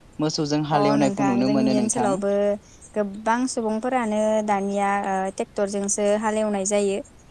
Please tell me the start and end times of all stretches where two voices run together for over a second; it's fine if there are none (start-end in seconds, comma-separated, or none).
0.8-2.2